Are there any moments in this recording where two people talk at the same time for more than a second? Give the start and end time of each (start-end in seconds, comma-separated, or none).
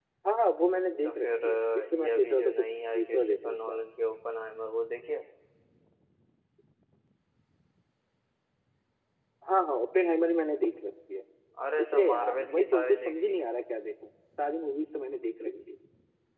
1.0-3.8, 11.8-13.4